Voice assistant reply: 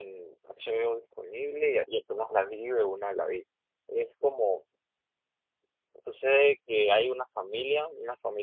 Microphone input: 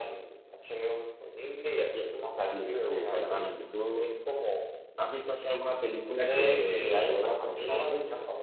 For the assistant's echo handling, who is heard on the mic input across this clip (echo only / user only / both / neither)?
both